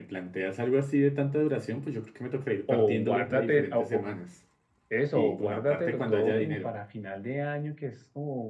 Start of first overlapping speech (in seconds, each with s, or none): 2.7 s